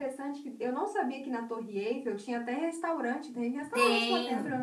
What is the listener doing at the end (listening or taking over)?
taking over